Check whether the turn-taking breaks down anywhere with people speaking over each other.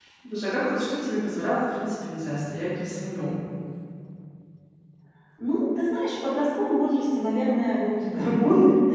No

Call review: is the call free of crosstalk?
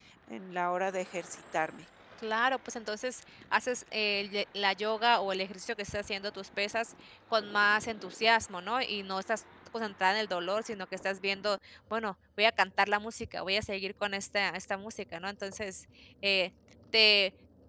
Yes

